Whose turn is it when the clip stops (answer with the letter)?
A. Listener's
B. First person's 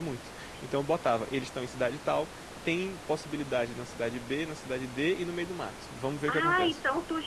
A